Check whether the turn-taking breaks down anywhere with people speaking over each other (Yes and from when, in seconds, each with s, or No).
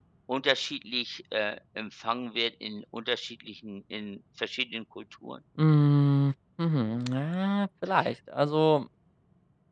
No